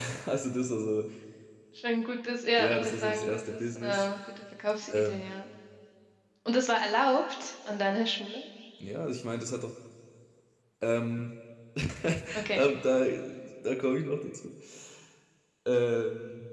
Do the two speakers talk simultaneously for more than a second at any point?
Yes, from 2.6 s

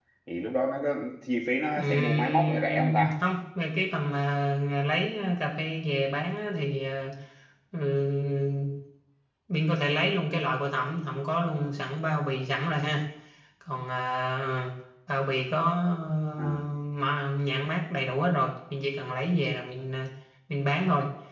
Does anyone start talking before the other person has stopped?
Yes, from 1.8 s

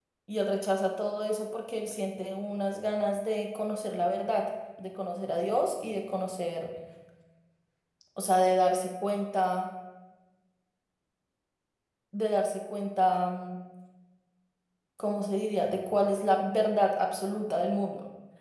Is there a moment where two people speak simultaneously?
No

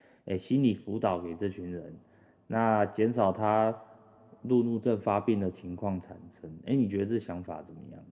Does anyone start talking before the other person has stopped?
No

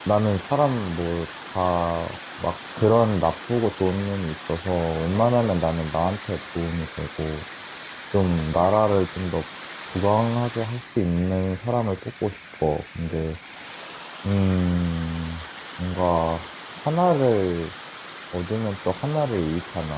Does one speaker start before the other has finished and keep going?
No

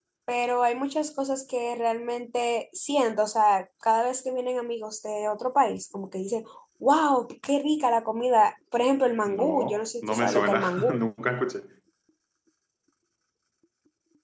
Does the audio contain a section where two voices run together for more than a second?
Yes, from 9.3 s

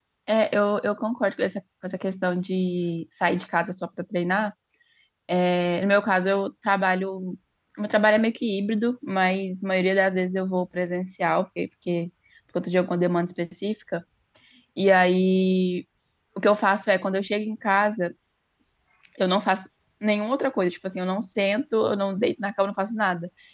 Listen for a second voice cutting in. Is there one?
No

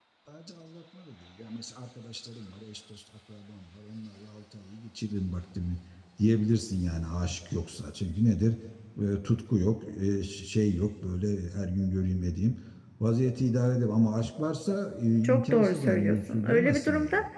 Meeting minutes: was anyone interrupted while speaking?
Yes, from 15.2 s

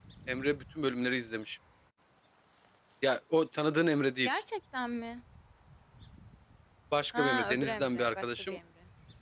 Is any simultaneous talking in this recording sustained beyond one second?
Yes, from 7.2 s

